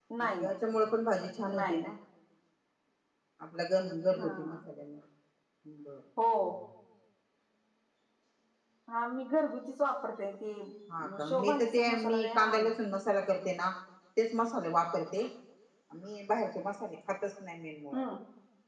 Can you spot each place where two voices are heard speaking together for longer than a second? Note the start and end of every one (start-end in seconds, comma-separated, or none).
11.3-12.7